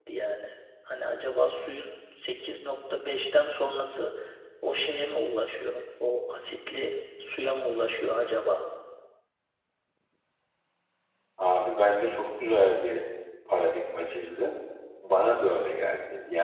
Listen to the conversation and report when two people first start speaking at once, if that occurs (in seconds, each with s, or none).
none